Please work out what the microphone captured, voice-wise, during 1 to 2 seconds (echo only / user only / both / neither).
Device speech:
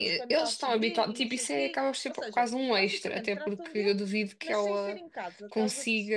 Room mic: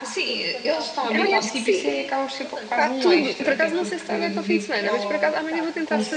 both